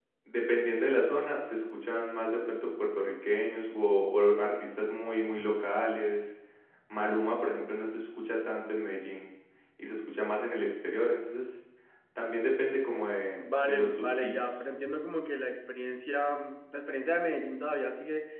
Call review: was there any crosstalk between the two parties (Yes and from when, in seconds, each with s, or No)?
Yes, from 13.4 s